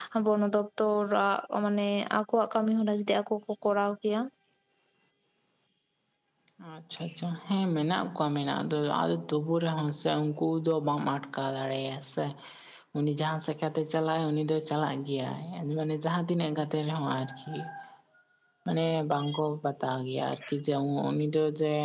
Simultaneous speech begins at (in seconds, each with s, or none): none